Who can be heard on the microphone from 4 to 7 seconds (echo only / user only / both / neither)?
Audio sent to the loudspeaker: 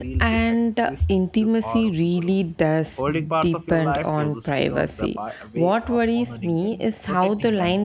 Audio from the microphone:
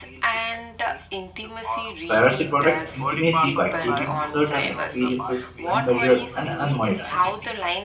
both